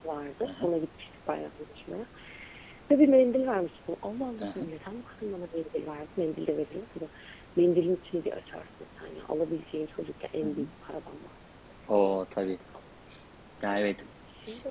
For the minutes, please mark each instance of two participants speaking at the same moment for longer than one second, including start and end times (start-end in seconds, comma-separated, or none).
none